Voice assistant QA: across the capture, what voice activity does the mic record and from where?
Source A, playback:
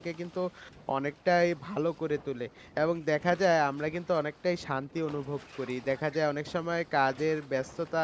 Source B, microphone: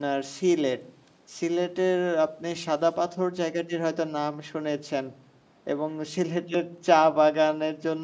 user only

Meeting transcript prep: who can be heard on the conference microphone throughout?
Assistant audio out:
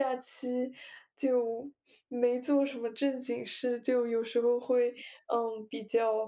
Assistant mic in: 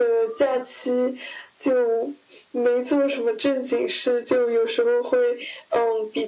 echo only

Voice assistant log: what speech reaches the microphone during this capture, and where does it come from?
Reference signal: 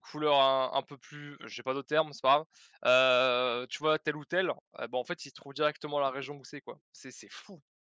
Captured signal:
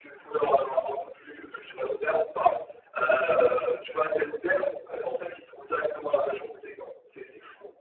echo only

